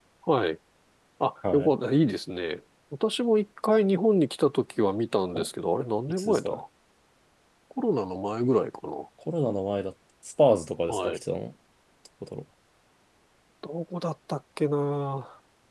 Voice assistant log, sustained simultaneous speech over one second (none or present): none